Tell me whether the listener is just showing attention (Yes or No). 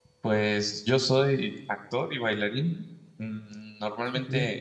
Yes